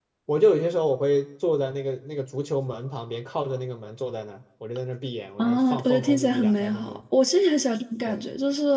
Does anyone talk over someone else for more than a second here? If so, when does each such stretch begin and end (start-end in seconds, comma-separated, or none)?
5.4-7.0